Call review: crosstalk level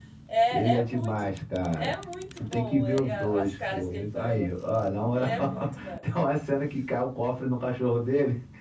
present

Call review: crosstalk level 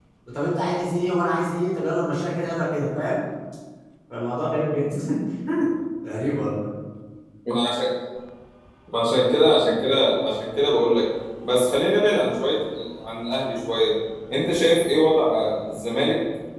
none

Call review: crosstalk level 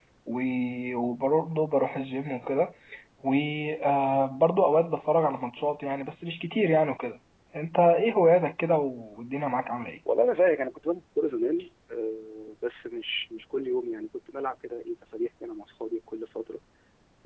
none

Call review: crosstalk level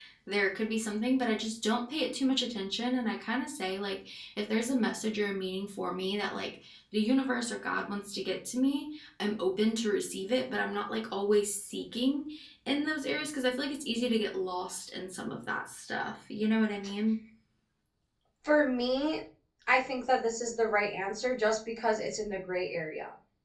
none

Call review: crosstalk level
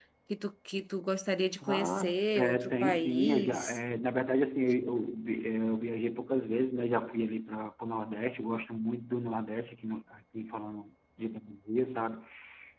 present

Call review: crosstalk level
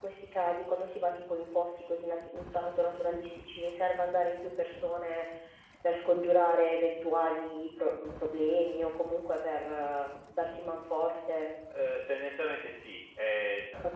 none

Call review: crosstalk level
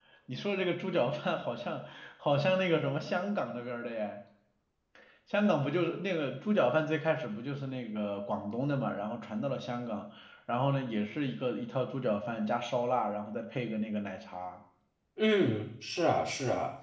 none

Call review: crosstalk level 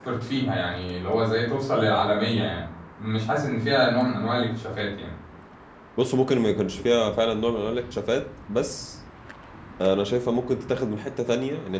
none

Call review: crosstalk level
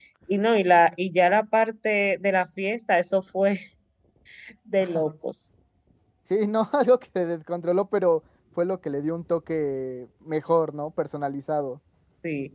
none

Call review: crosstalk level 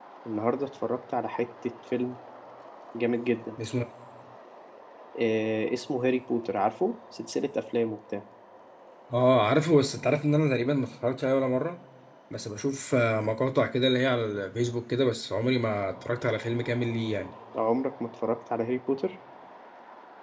none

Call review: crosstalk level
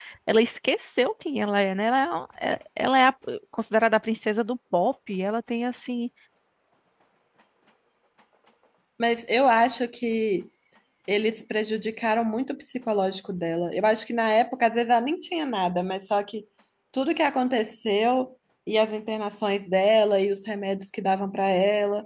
none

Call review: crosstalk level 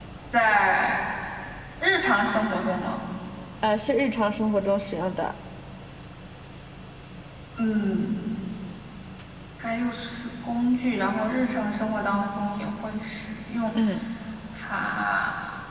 none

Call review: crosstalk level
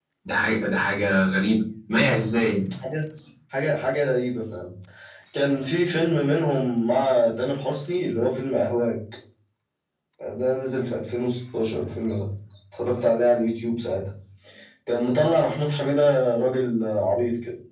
none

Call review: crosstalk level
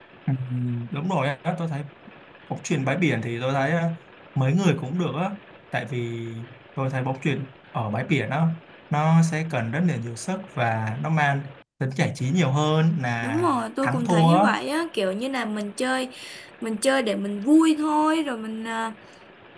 present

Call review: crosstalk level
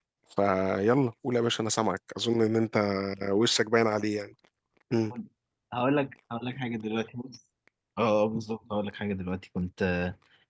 none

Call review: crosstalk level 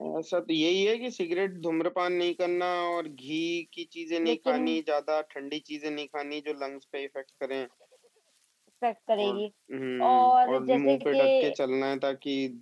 present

